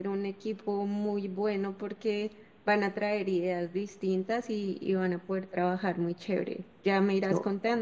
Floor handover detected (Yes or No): No